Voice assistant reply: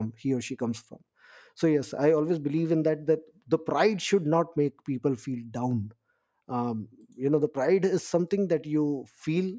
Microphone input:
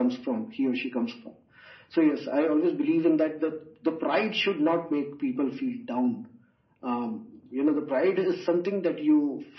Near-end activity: none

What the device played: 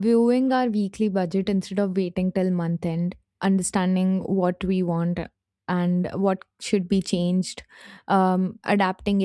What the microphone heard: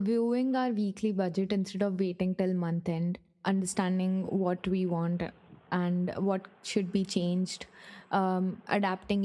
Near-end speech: none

